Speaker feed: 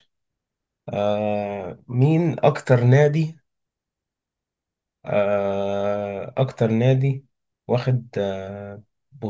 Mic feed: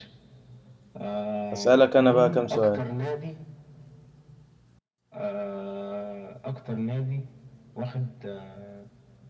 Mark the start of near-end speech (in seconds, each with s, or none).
1.5 s